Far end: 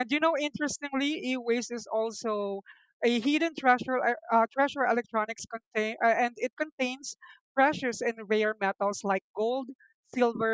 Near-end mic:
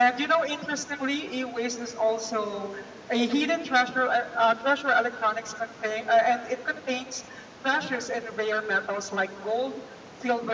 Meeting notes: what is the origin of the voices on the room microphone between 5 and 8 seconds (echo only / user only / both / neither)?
echo only